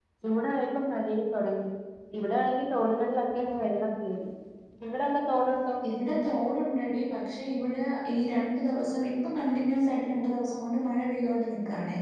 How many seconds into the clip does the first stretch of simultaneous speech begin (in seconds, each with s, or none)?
none